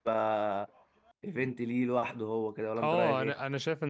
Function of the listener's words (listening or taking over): taking over